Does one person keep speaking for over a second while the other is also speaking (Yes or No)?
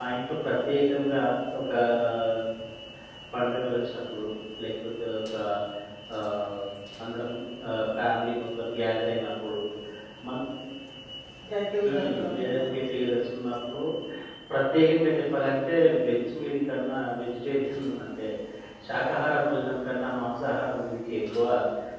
Yes